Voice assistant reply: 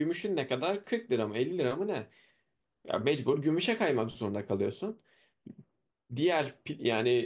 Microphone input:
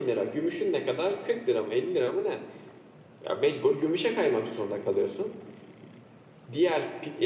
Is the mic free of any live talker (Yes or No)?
Yes